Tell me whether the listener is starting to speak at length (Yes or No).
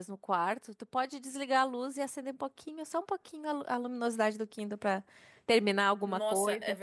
Yes